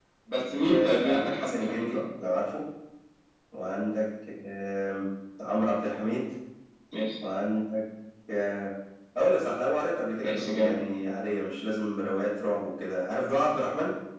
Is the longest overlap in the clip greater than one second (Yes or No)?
Yes